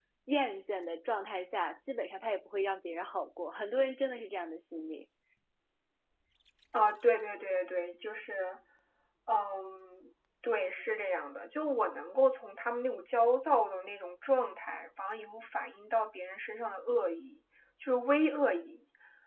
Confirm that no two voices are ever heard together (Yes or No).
Yes